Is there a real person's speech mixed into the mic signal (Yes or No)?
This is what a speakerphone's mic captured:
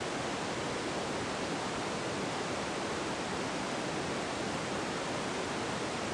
No